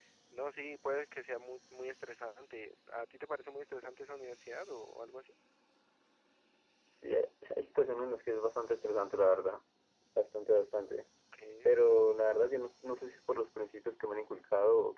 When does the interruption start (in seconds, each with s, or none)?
none